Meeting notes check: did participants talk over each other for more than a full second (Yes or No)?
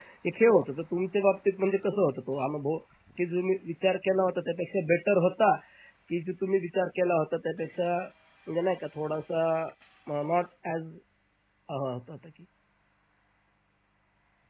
No